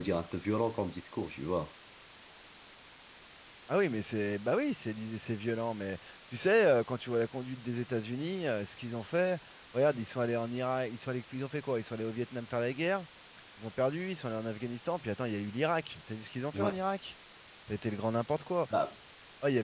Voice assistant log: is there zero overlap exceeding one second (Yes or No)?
Yes